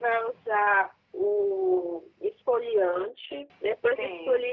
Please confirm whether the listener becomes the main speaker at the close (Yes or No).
No